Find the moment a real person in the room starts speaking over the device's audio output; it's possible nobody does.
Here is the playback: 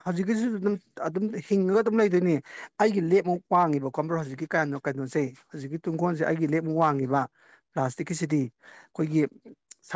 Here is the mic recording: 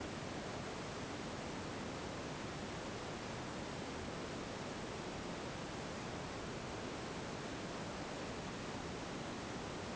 none

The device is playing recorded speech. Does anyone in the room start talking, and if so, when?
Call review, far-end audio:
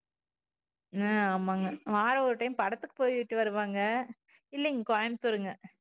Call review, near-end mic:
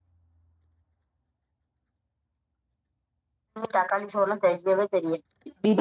4 s

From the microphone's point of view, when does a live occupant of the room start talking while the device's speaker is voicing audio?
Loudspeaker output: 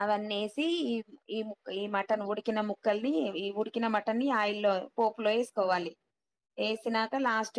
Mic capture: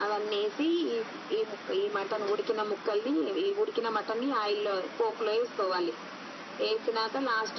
none

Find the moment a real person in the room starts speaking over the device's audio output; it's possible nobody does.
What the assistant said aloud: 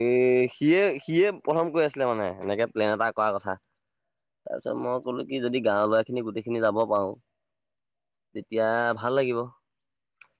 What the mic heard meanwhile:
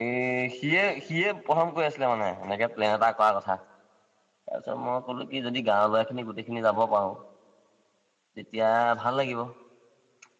none

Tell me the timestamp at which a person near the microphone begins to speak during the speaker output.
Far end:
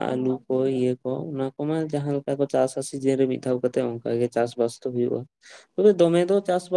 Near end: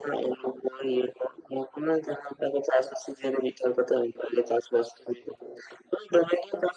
none

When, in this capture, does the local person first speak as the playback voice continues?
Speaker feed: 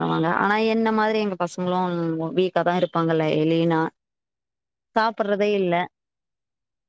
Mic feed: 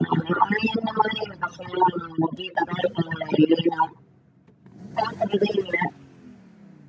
none

